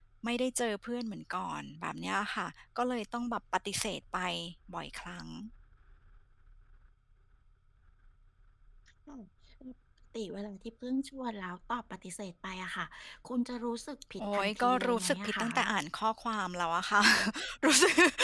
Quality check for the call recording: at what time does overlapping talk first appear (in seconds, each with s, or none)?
14.2 s